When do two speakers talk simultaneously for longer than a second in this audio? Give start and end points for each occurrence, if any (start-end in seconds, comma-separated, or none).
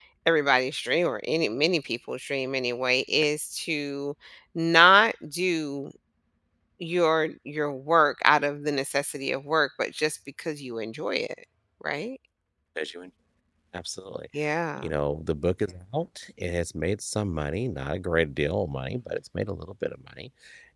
none